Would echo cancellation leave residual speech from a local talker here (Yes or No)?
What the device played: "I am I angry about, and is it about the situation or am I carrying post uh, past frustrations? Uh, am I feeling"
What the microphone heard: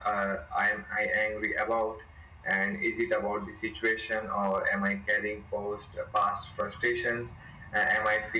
No